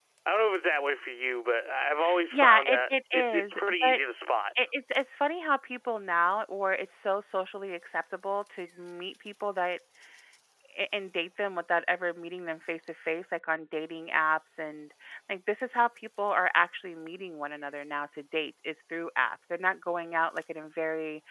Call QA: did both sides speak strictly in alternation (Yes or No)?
No